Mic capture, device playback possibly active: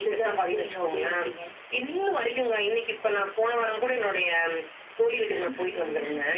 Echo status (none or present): present